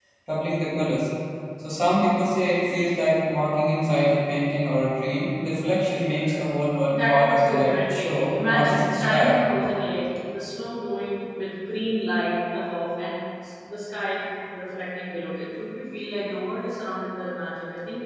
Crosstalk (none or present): present